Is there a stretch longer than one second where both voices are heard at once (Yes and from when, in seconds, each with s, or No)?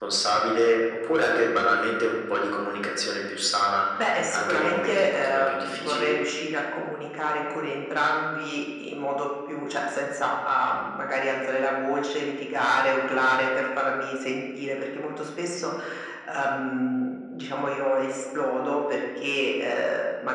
Yes, from 4.3 s